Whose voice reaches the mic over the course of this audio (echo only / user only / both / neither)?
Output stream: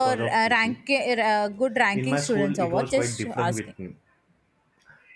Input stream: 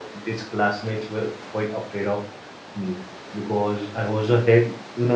user only